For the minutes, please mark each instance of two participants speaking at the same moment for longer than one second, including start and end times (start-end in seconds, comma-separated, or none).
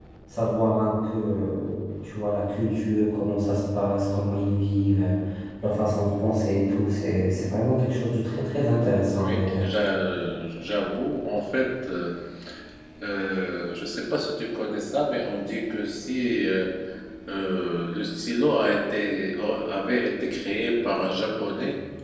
none